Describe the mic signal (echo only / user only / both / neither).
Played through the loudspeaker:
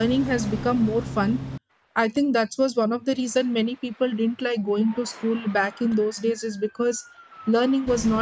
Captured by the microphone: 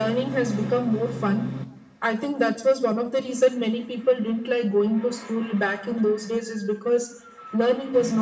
echo only